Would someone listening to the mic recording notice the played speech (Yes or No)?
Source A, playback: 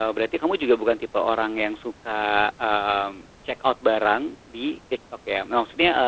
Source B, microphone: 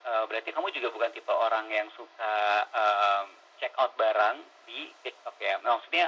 Yes